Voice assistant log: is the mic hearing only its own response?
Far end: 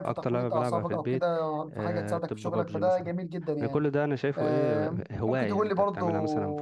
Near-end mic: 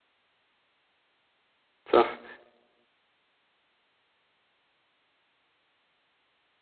No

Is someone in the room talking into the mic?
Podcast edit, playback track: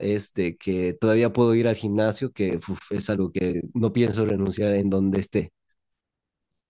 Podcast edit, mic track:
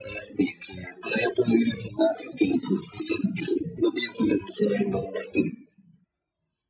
No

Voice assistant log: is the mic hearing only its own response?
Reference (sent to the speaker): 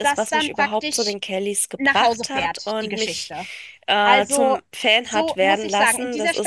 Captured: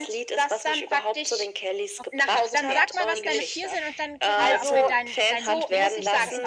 No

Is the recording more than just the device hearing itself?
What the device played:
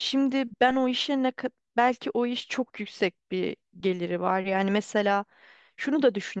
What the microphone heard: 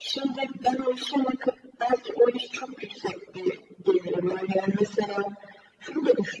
No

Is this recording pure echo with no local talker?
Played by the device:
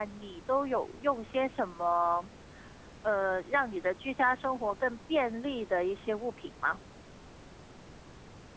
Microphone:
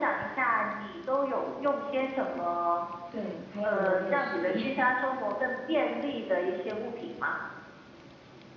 No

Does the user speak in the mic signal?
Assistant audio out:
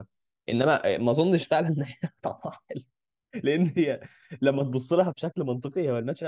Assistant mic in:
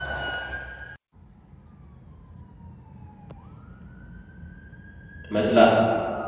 Yes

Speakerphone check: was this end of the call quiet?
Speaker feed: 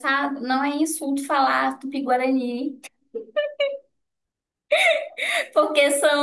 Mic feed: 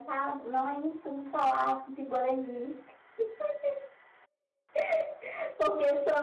Yes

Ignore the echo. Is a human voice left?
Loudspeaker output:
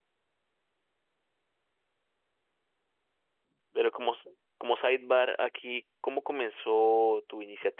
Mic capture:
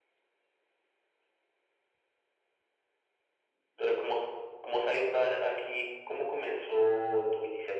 No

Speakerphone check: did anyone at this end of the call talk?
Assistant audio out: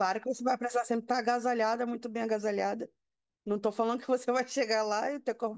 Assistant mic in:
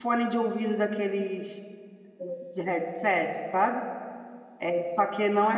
Yes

